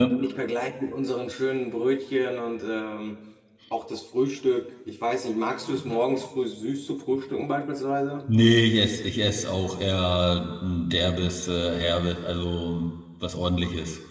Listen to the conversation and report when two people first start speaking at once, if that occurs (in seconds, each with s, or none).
none